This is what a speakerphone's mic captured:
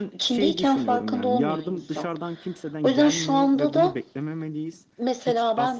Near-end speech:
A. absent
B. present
B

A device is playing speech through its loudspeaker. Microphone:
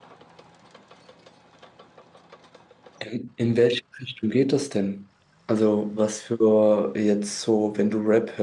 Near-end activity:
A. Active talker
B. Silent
A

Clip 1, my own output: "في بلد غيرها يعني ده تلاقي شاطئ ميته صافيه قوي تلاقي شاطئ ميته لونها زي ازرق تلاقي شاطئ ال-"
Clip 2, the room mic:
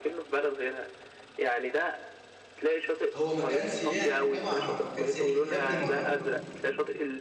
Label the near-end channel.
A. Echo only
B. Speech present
B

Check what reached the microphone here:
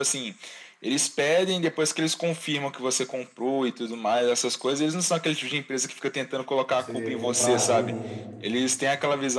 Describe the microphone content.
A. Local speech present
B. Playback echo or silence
A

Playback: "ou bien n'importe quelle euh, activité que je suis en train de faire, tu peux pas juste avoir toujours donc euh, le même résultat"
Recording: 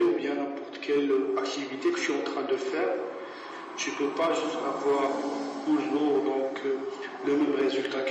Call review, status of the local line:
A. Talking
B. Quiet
B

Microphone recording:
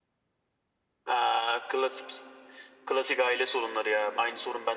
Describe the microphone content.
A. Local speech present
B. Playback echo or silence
B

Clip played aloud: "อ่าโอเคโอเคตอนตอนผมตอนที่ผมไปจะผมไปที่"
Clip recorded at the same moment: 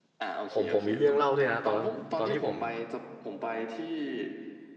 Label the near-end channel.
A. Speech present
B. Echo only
A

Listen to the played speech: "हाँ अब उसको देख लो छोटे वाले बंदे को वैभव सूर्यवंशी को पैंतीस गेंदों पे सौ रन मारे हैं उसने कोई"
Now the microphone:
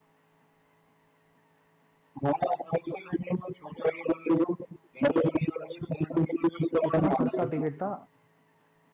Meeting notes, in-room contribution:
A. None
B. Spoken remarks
B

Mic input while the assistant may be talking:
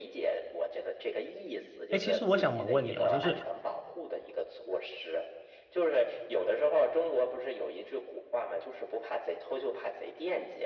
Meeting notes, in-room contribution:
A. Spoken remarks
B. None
A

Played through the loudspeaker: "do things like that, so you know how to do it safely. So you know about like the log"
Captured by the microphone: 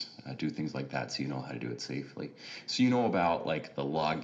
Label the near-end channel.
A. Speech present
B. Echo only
B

